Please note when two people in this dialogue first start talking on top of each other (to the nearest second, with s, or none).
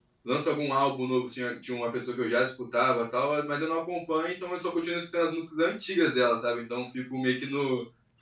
none